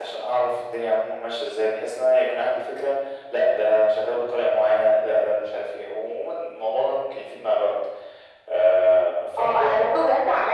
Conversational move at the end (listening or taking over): taking over